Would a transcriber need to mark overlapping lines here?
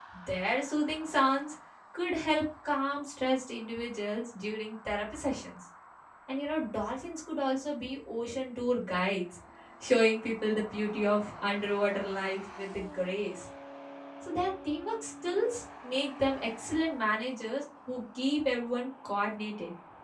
No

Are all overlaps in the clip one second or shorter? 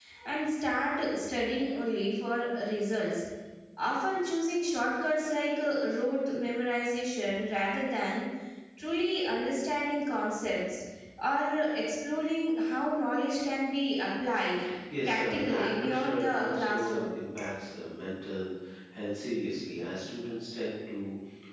No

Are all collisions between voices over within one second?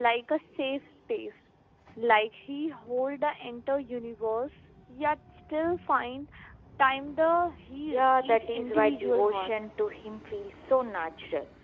No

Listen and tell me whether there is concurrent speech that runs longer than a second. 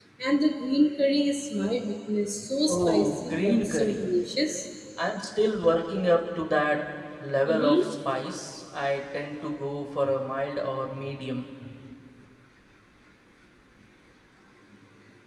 Yes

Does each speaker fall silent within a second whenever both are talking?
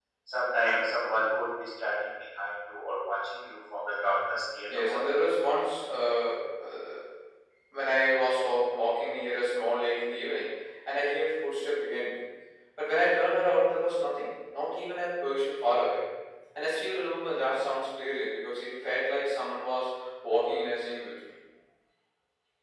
Yes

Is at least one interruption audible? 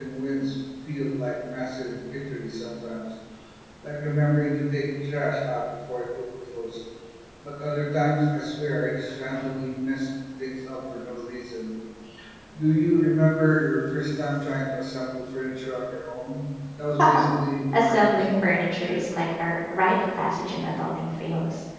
Yes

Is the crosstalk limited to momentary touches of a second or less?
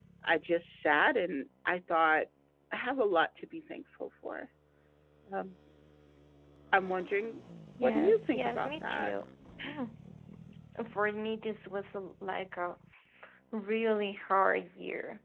No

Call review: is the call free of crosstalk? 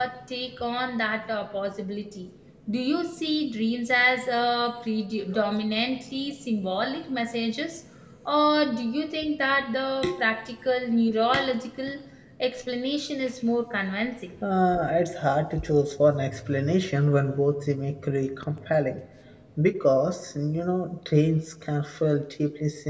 Yes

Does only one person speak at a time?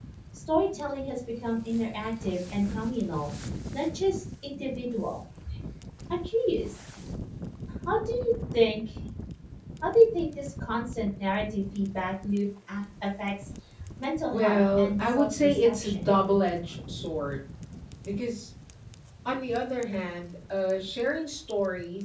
No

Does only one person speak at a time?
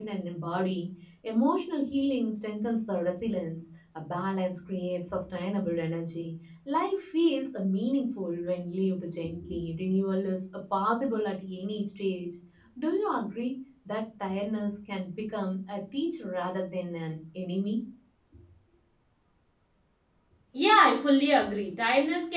Yes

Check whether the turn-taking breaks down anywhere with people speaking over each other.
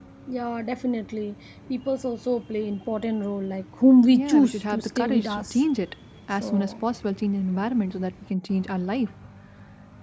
Yes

